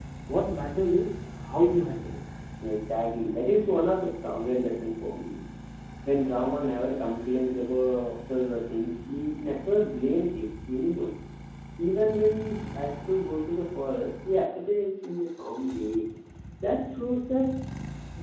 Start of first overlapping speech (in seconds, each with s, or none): none